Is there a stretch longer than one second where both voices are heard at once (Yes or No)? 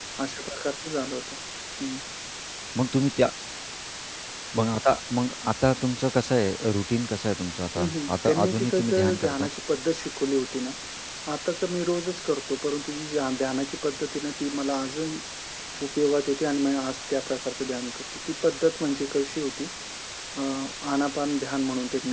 Yes